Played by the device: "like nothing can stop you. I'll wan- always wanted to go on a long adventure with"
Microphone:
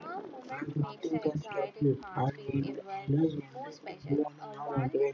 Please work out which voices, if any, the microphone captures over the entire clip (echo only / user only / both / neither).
both